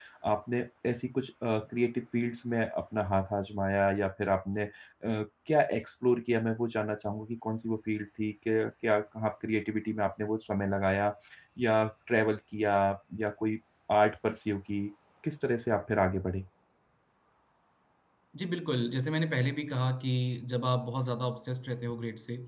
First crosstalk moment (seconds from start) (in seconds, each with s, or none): none